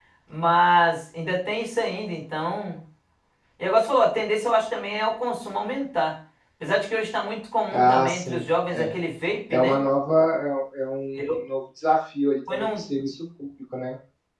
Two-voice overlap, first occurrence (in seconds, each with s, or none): 7.7 s